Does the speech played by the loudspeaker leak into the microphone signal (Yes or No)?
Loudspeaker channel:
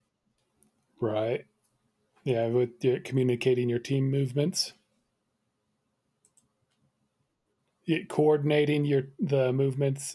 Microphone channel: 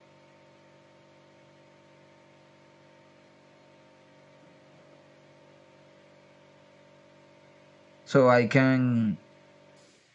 No